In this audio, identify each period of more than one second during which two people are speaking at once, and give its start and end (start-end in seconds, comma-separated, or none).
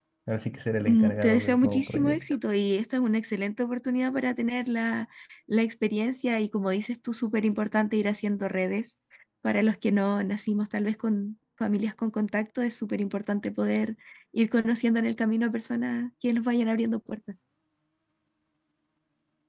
0.9-2.2